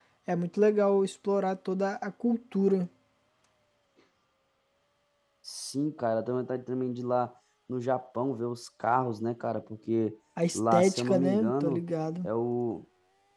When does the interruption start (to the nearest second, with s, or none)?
10 s